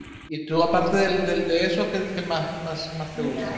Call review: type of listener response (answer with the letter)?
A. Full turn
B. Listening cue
A